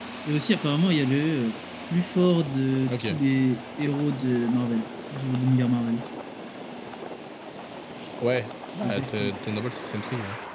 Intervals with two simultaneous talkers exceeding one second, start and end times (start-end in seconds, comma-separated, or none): none